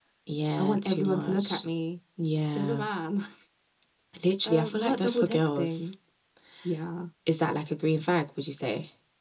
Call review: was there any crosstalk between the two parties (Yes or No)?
Yes